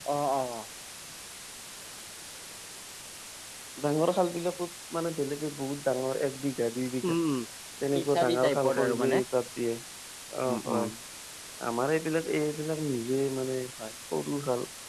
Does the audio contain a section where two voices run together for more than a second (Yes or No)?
Yes